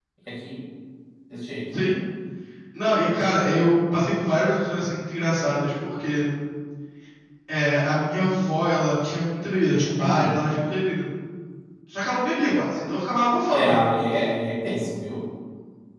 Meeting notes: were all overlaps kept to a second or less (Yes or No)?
Yes